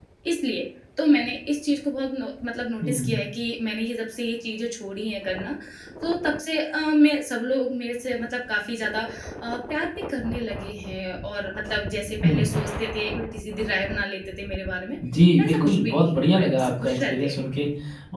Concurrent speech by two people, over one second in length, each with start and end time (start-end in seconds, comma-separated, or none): 15.4-17.3